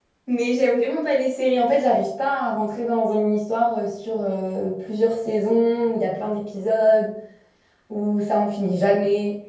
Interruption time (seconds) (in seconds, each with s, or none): none